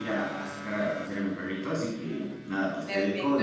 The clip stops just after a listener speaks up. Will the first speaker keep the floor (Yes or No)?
No